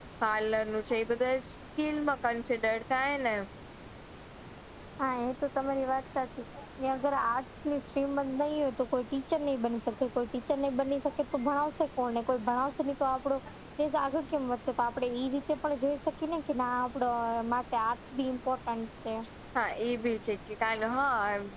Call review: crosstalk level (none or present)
none